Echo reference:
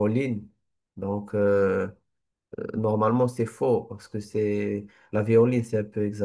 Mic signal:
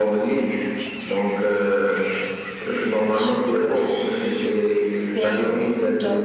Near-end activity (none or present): present